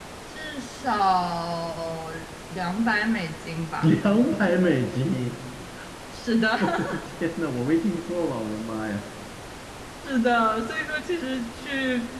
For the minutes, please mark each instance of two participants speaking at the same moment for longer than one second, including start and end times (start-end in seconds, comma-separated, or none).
none